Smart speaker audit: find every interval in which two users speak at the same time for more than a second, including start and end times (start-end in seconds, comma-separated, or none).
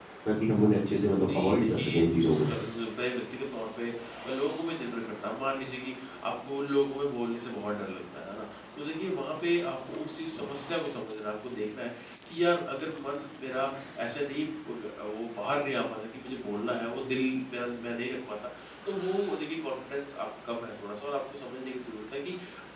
1.3-2.5